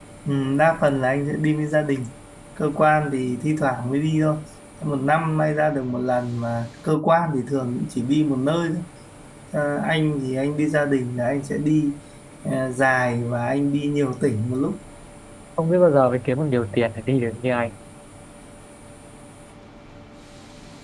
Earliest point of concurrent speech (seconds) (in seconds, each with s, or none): none